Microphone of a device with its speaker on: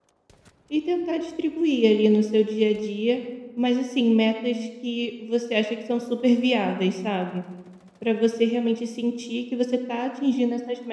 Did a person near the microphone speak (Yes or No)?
Yes